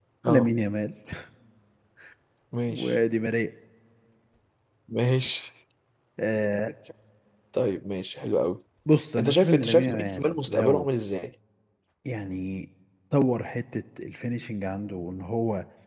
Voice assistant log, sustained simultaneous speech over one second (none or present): present